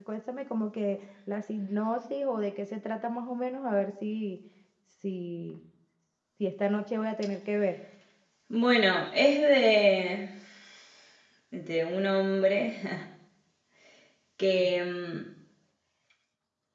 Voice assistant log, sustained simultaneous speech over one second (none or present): none